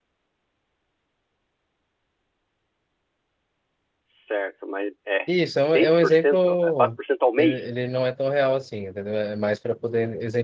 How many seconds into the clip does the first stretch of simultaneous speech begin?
5.3 s

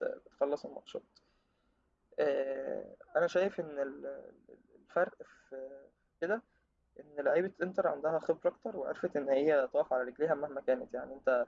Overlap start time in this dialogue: none

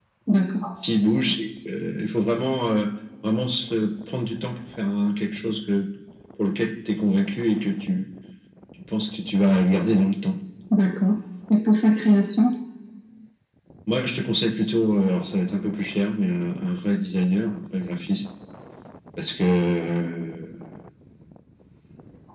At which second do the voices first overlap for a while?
none

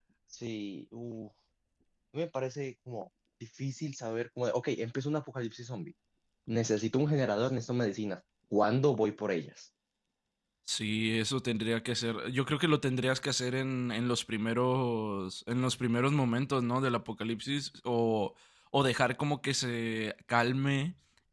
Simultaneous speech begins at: none

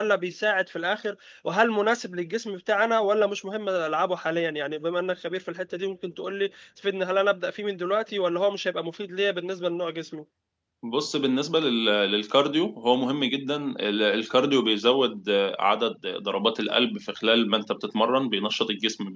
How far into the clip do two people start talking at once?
none

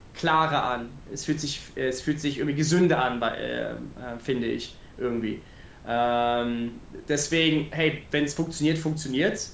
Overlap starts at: none

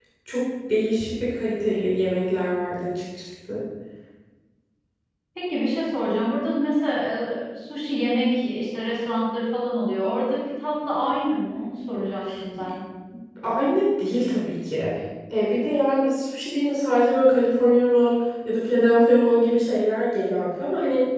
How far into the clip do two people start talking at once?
none

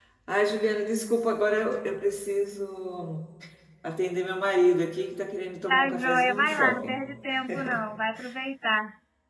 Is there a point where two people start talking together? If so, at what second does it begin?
5.7 s

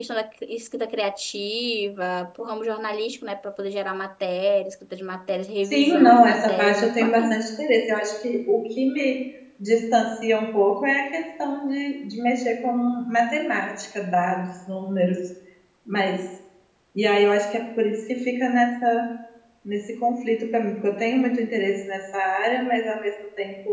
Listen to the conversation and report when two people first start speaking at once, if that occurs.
5.6 s

